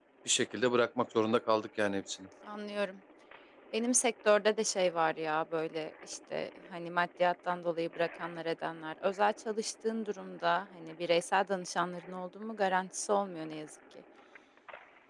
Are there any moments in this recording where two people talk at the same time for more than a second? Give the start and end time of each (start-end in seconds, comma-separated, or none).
none